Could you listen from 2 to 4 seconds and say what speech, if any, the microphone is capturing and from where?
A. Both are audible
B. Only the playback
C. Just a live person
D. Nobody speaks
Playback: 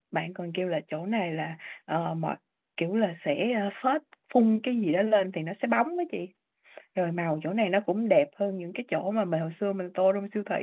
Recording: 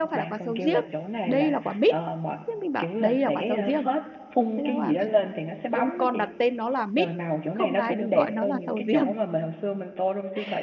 A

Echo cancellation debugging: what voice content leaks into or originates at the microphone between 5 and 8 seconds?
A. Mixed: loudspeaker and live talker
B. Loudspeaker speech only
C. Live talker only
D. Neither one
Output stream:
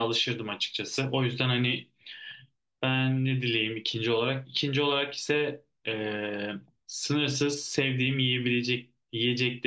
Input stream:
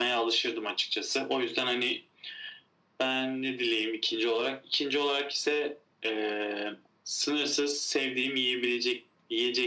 B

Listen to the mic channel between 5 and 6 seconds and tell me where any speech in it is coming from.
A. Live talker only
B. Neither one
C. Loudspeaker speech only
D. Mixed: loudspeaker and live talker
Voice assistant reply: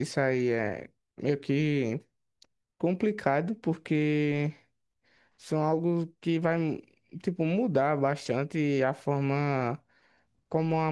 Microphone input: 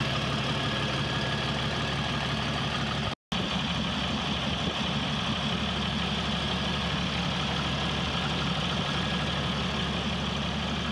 B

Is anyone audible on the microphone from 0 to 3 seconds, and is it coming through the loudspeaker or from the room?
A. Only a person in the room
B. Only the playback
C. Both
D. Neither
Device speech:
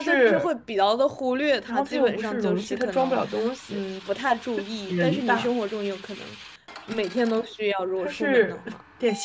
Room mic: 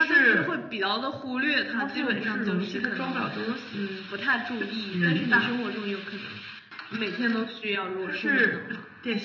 B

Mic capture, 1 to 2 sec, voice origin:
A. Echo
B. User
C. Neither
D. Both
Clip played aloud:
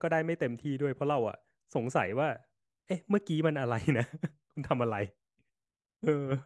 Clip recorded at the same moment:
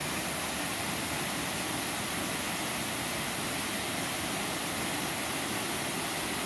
C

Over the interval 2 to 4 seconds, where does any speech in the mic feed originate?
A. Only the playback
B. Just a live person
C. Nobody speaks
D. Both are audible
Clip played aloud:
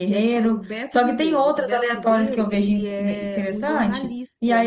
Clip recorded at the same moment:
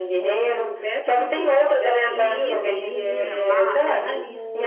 D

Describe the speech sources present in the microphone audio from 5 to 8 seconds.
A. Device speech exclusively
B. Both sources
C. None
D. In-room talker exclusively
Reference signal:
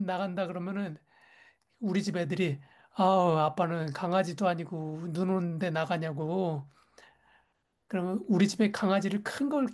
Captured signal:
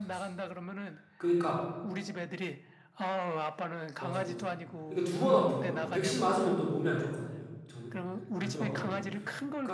B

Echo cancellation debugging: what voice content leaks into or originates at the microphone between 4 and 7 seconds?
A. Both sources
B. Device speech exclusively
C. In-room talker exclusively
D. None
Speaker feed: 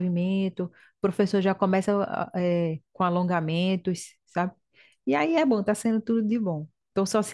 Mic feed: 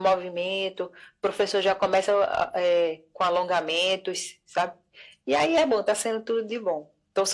B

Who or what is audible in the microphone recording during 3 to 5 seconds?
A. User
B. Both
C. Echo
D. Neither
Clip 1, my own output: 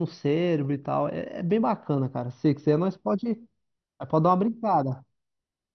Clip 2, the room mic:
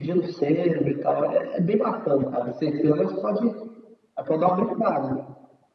C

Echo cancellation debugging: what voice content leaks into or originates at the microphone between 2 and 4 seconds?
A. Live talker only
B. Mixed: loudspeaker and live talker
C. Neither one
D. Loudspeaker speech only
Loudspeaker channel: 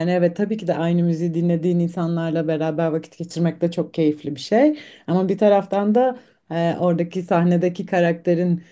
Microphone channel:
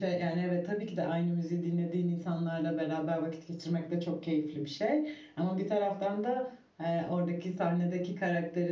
D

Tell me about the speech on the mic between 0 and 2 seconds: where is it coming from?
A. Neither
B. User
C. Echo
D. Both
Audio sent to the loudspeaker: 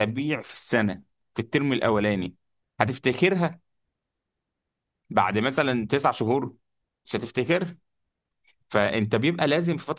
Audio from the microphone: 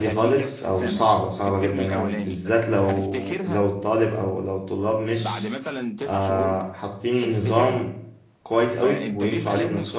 D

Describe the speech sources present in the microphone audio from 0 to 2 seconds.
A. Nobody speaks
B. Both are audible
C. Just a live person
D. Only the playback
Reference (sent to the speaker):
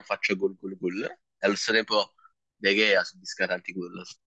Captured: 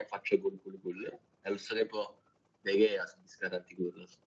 D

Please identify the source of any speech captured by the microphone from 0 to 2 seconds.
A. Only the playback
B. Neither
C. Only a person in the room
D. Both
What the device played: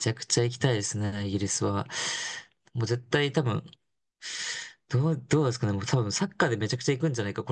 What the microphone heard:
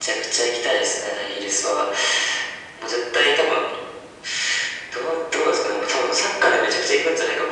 A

